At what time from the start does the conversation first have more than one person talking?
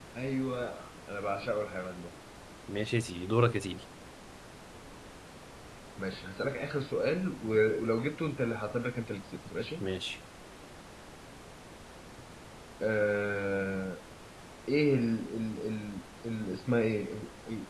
none

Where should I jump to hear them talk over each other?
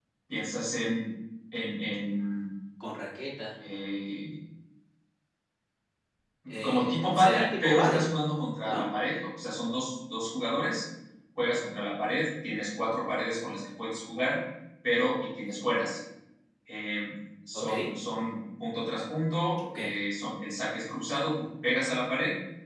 6.6 s

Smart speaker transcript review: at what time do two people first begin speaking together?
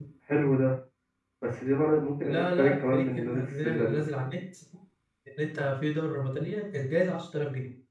2.2 s

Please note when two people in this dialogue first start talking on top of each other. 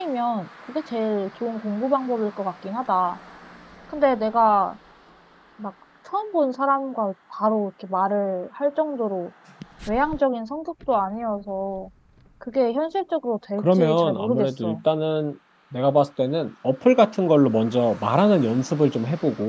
13.6 s

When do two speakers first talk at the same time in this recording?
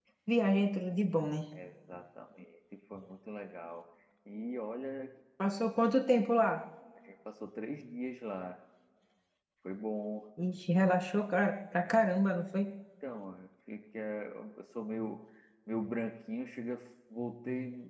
none

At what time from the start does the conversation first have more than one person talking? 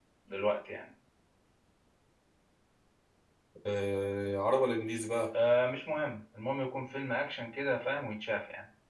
none

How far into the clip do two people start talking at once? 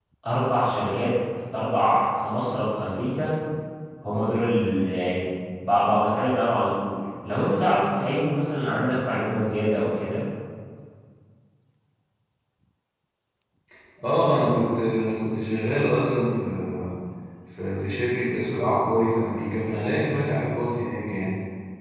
none

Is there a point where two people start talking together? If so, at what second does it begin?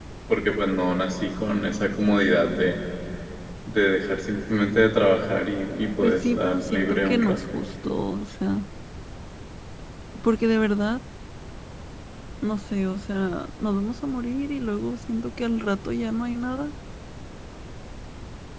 6.0 s

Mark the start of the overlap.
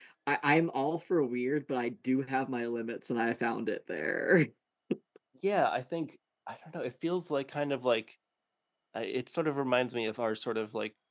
none

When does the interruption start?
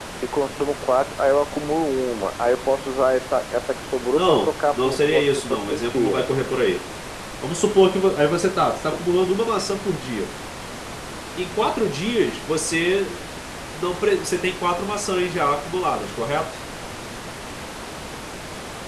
4.1 s

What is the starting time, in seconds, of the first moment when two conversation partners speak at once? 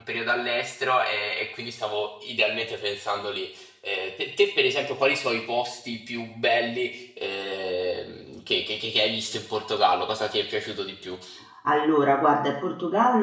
none

